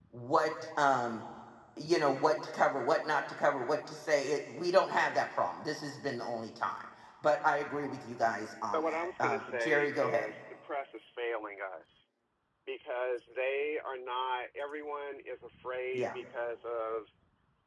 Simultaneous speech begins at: 9 s

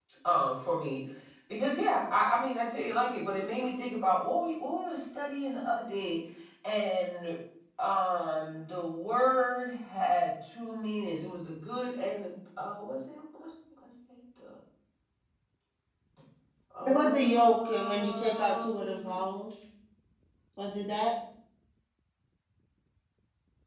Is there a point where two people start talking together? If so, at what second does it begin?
17 s

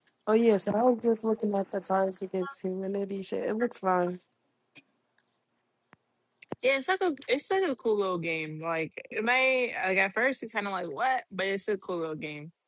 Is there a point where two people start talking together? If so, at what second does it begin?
none

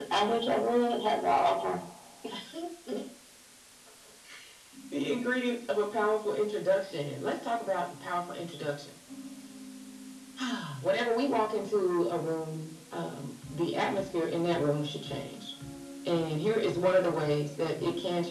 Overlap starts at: none

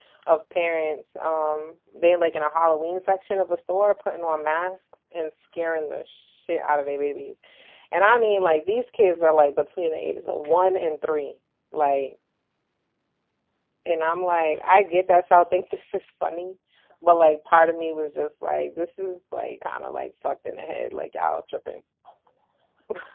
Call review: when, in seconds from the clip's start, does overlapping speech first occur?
none

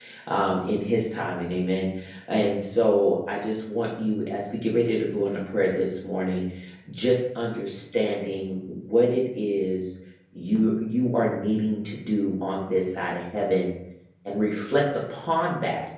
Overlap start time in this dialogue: none

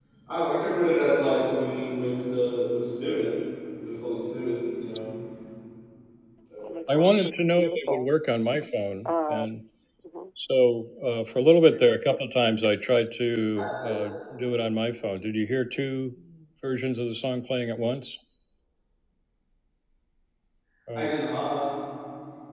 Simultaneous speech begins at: 7 s

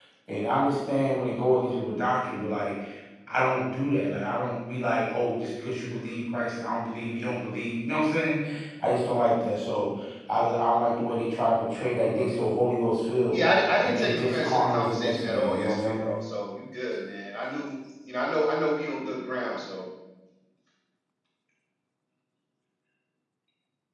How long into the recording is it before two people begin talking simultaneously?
14 s

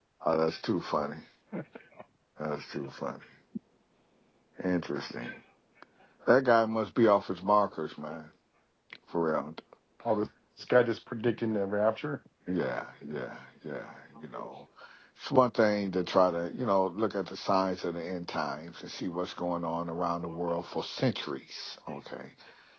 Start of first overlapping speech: none

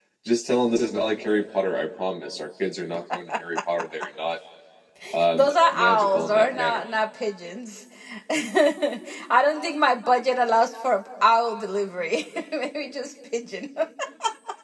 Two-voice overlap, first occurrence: 5 s

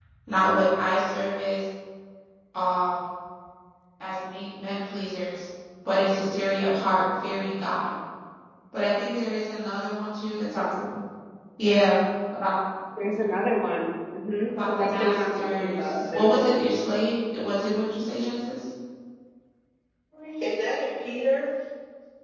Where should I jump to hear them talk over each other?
14 s

